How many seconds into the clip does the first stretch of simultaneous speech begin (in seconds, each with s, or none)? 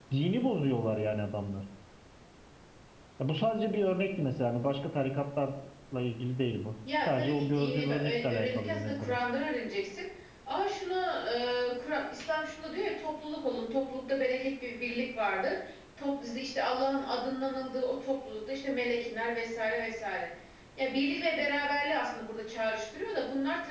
6.8 s